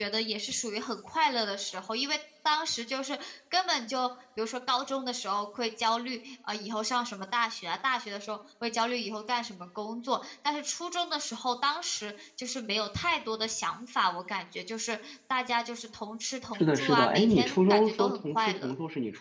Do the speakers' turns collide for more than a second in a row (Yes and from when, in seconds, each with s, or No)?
Yes, from 16.5 s